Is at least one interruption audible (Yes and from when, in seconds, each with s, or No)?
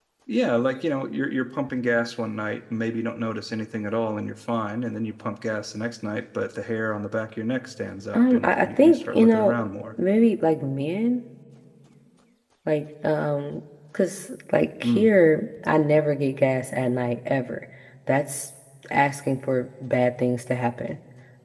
Yes, from 8.1 s